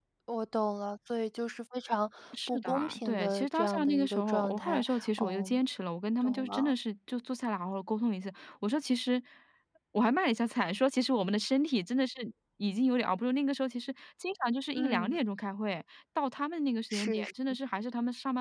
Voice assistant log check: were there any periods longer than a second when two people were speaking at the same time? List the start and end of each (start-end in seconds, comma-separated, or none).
2.5-5.6